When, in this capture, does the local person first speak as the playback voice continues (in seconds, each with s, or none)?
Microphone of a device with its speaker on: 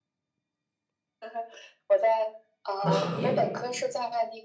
2.8 s